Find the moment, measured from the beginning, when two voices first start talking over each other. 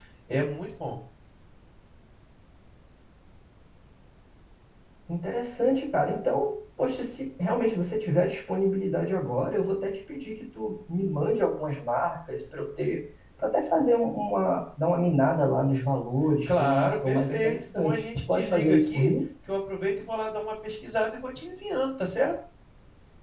16.5 s

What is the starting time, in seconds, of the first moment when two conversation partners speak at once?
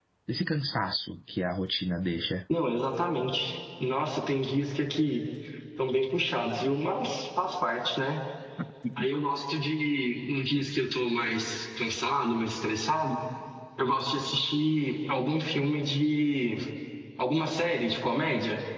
none

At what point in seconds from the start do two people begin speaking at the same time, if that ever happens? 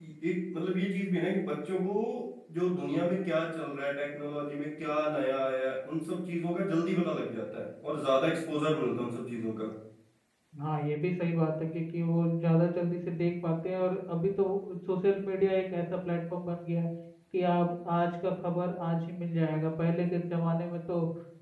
none

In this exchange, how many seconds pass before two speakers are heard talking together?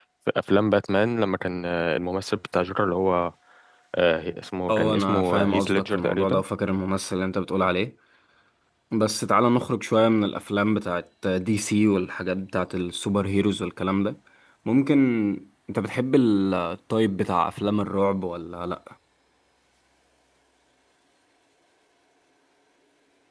4.7 s

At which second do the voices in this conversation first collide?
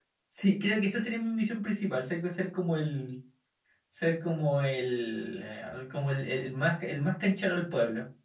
none

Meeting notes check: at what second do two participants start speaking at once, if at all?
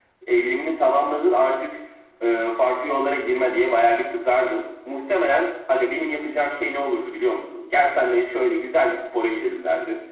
none

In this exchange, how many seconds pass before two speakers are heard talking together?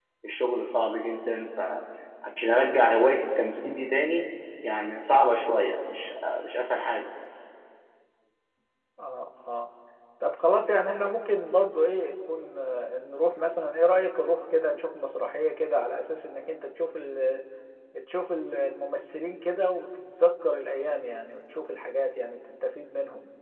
none

